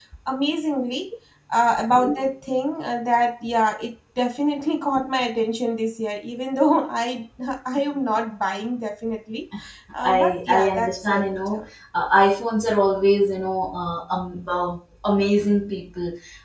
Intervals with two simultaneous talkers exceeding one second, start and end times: 10.0-11.6

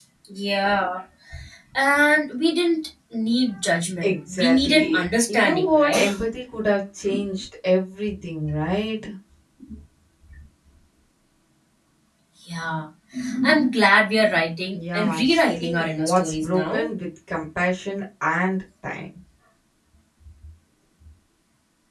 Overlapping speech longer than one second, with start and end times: 4.0-6.0, 14.7-16.9

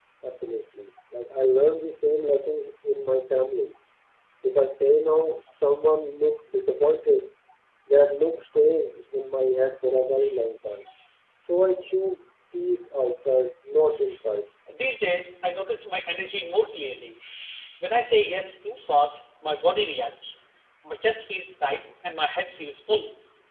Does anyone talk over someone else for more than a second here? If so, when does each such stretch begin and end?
none

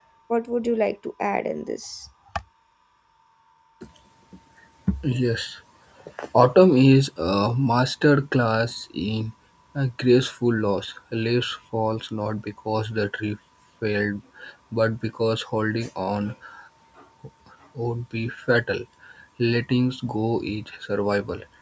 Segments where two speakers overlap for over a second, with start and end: none

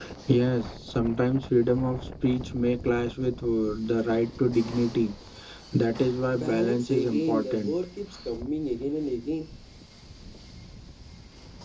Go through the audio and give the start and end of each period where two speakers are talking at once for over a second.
6.3-7.7

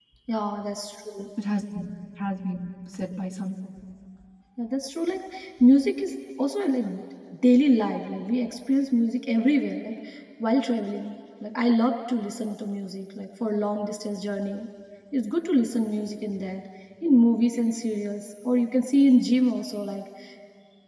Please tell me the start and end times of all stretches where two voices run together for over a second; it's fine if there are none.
none

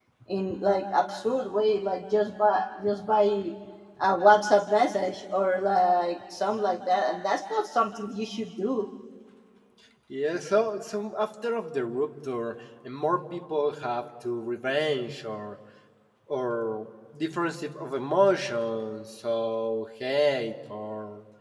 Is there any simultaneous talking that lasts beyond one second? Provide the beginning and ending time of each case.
none

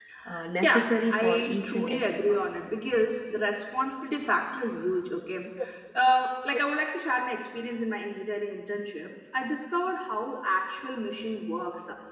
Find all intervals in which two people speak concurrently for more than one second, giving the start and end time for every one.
0.6-2.4

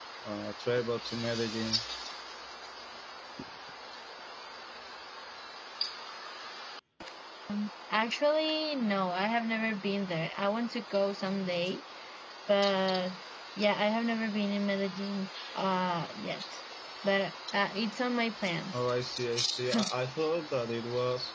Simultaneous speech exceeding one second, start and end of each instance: none

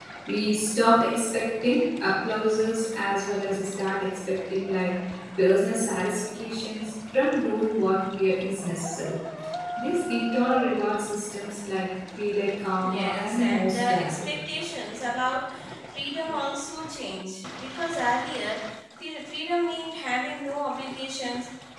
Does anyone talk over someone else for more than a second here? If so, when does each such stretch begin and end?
12.8-14.2

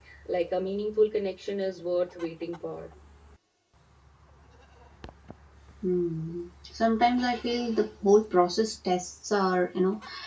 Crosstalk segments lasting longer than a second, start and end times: none

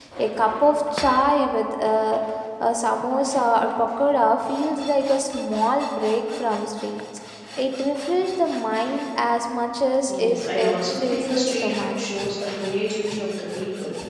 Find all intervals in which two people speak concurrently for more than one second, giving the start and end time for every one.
10.2-11.9

